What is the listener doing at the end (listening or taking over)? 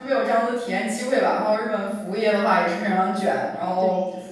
listening